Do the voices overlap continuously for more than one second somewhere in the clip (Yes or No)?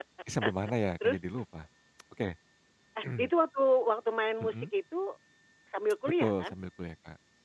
No